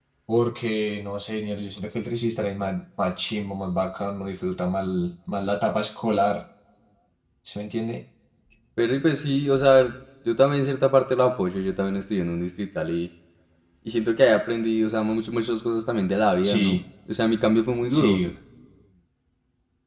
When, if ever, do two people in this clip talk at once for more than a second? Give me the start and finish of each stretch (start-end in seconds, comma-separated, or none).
none